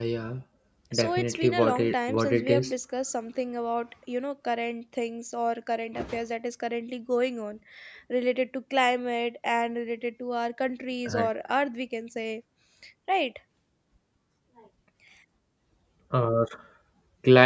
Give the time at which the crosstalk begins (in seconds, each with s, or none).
0.9 s